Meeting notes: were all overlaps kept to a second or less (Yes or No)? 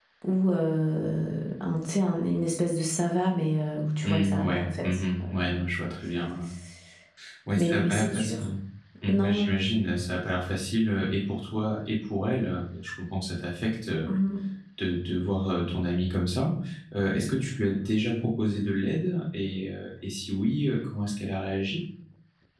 No